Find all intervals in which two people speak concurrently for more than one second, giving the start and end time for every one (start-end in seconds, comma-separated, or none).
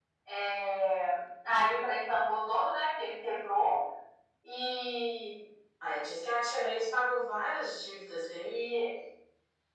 none